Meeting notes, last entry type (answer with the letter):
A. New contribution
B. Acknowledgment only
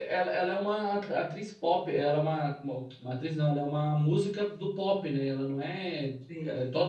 B